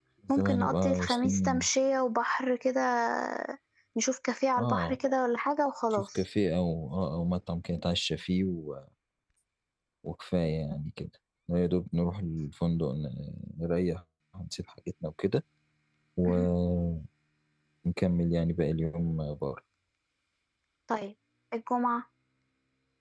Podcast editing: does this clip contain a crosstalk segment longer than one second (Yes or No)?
Yes